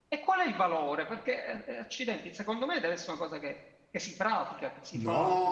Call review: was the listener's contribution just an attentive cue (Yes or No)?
No